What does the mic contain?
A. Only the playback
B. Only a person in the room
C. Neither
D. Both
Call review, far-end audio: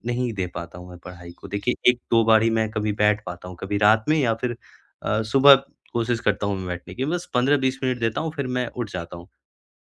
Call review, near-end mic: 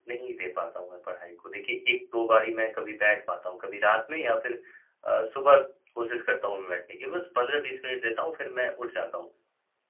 A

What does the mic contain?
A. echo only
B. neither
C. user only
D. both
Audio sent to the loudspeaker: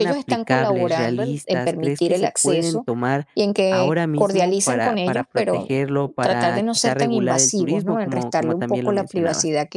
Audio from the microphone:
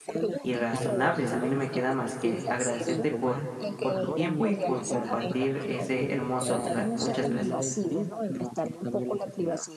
D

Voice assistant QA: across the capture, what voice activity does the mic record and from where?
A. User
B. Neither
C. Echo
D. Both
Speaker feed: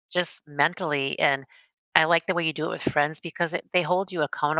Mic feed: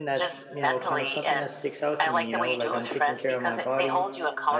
D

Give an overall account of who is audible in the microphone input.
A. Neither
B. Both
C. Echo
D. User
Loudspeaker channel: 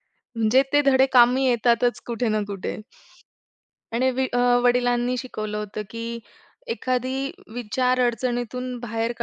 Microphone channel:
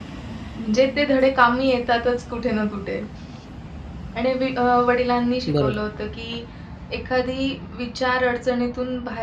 B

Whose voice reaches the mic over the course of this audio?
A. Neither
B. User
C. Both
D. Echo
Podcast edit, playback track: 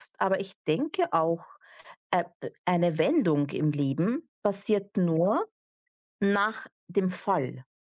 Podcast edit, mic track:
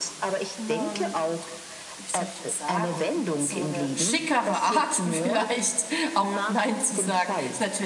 C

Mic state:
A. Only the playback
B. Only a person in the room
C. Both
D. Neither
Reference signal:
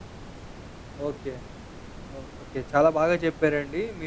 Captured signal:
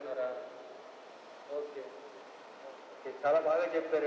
A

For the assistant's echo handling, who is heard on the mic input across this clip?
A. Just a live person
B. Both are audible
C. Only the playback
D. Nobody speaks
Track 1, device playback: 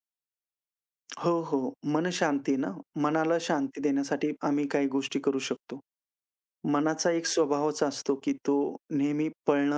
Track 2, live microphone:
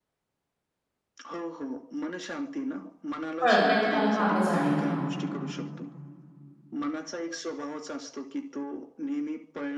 B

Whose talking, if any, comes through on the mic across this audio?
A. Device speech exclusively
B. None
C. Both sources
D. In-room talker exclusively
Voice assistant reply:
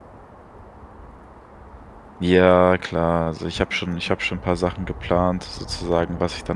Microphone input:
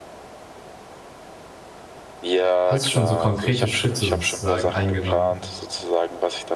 C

